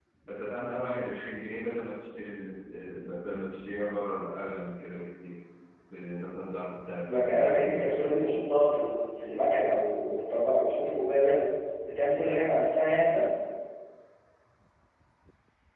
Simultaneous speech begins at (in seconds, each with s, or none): 7.0 s